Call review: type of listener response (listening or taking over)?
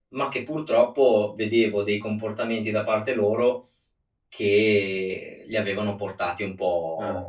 taking over